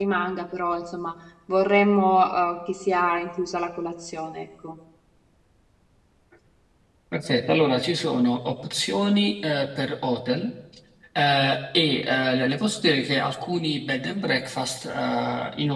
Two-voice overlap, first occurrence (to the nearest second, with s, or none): none